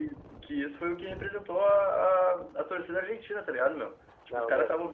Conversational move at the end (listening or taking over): listening